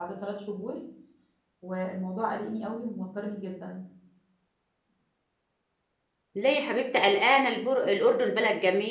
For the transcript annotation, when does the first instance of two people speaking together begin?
none

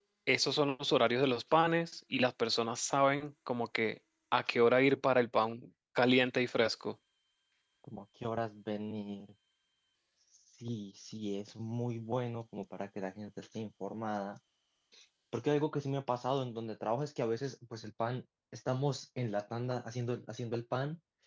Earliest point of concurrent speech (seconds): none

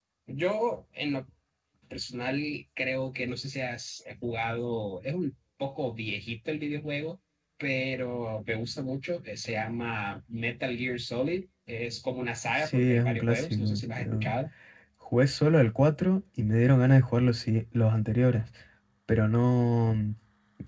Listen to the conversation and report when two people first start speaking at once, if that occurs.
12.5 s

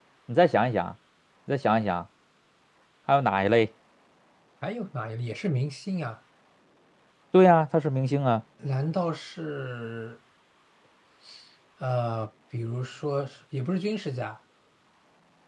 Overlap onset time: none

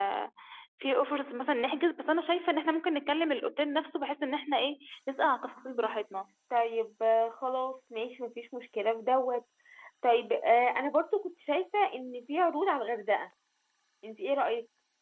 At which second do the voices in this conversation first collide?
none

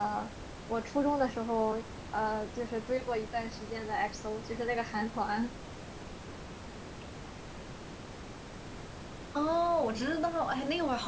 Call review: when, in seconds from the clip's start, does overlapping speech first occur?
none

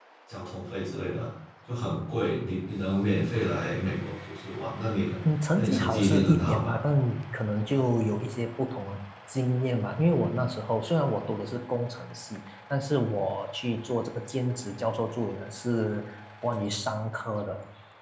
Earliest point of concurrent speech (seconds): 5.6 s

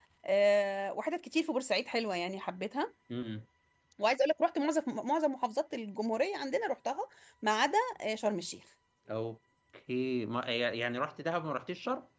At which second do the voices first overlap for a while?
none

